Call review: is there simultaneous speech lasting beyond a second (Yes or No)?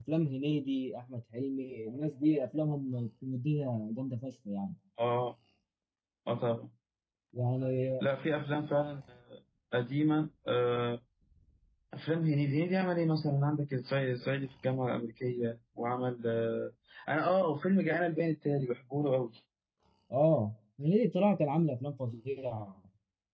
No